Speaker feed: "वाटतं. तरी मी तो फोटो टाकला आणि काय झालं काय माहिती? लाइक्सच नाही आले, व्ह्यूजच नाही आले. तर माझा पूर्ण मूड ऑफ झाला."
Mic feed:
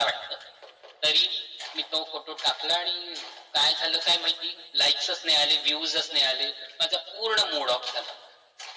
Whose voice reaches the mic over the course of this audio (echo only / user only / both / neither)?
echo only